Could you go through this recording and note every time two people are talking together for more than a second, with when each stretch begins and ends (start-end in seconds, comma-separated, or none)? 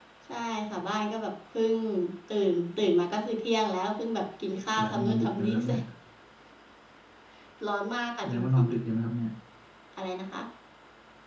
4.5-5.8